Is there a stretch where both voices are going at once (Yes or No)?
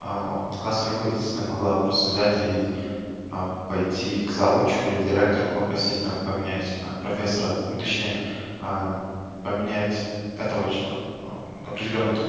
No